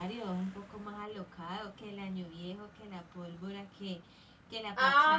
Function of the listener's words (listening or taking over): taking over